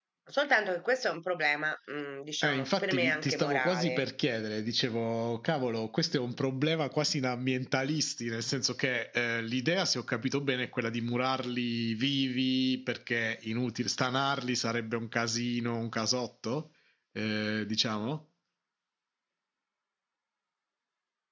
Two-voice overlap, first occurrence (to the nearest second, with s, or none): 2 s